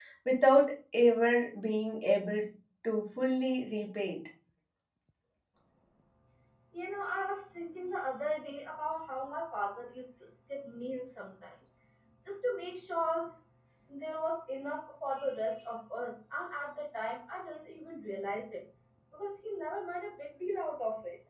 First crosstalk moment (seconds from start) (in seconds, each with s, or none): none